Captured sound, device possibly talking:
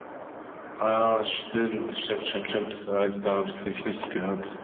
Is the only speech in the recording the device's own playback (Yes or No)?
Yes